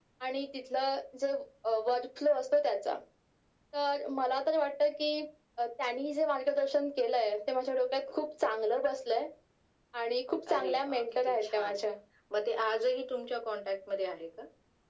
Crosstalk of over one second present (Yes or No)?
Yes